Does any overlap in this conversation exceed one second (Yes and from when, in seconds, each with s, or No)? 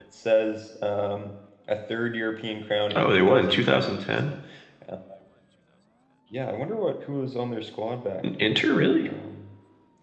Yes, from 3.0 s